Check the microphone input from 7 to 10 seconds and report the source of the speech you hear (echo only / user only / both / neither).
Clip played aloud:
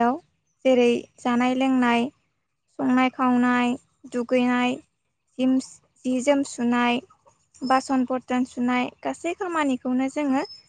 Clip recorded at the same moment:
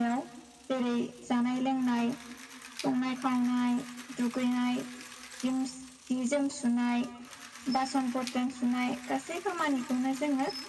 echo only